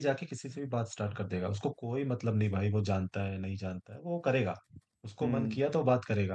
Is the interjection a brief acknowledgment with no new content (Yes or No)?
Yes